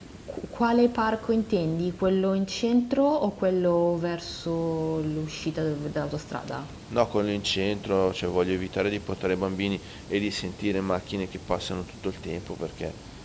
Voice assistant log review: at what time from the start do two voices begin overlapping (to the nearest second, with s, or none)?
none